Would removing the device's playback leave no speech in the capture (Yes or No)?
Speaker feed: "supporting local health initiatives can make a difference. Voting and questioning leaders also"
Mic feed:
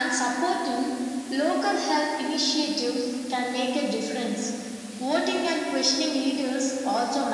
Yes